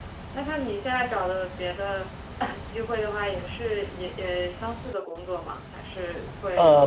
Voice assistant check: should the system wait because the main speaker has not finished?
No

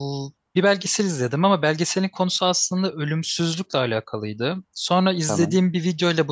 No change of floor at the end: Yes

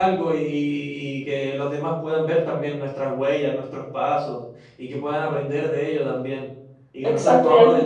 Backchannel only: No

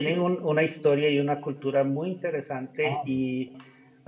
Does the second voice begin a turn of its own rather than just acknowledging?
No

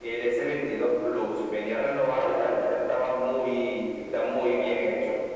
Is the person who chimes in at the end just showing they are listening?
No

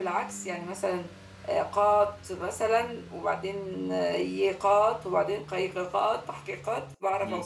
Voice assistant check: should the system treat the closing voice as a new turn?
Yes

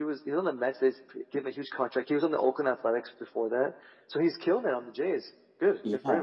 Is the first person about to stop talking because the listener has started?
Yes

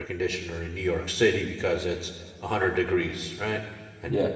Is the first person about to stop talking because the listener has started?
No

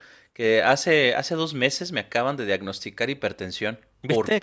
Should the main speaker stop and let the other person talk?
Yes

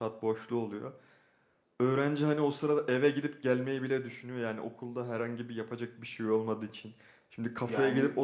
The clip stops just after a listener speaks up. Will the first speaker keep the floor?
Yes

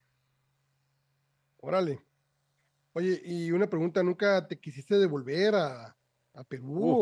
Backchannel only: No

